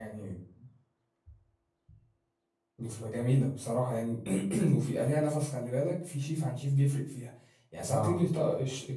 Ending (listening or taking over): listening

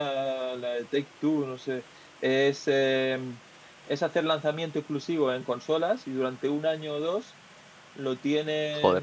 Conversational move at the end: listening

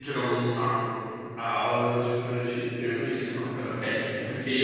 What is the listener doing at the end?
listening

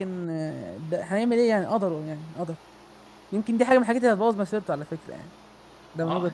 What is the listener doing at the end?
taking over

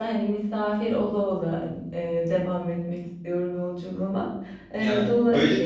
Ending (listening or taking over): taking over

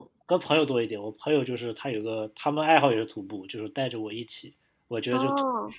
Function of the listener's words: listening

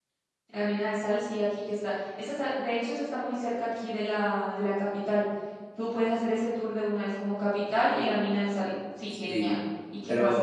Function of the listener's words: taking over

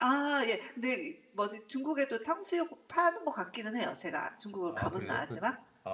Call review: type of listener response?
taking over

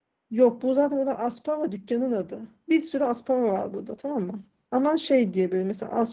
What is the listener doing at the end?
listening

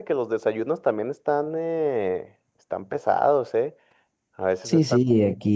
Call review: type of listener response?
taking over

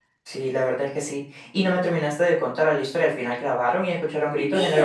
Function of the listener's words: taking over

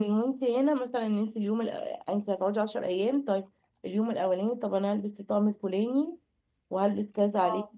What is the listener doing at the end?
listening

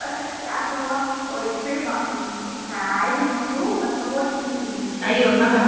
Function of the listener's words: taking over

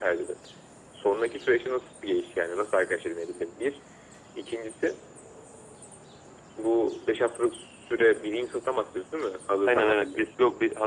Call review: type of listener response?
taking over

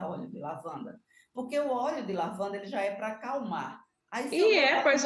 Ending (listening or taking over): taking over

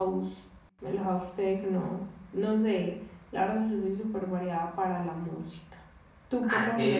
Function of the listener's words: taking over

